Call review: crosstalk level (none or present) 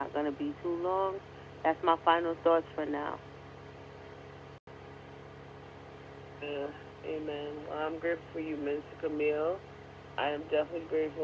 none